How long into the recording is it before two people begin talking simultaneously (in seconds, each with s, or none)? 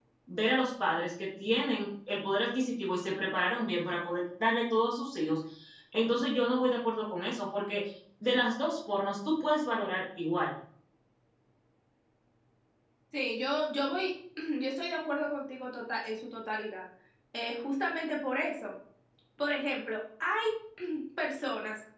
none